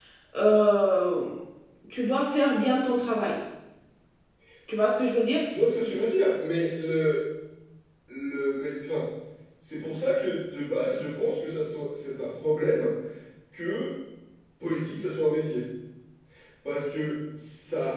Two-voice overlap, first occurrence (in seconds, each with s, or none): none